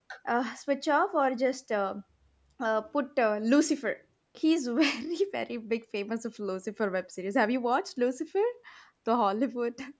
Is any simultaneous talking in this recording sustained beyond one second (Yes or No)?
No